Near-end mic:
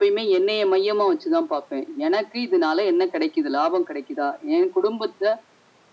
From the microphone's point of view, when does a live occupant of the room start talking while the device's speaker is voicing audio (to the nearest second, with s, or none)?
none